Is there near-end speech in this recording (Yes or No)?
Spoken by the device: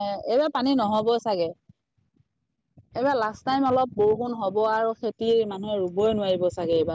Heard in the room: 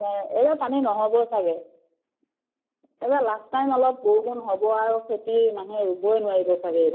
No